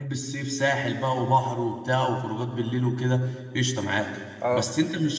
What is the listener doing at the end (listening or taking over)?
listening